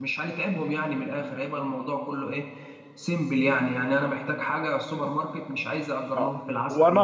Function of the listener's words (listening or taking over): taking over